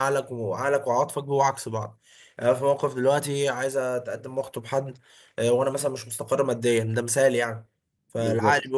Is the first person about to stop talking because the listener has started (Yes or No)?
No